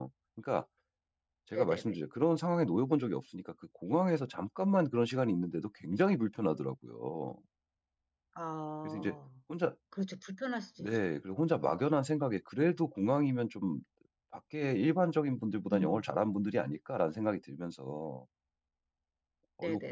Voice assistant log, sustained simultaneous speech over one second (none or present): none